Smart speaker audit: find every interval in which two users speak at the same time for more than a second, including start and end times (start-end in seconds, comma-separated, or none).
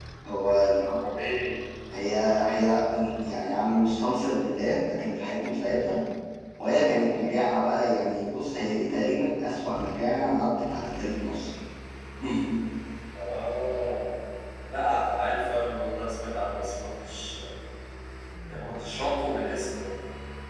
none